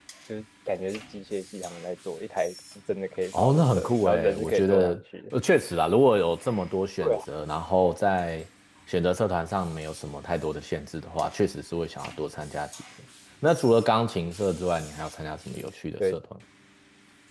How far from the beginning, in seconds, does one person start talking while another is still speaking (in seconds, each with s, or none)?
3.3 s